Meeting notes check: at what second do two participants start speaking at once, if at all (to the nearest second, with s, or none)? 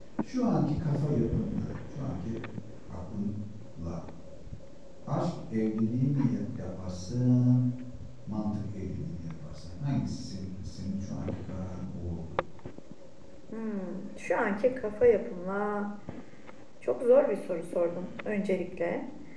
none